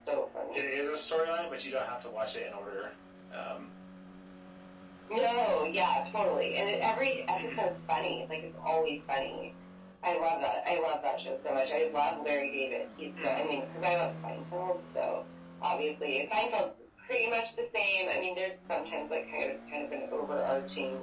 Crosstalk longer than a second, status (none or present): none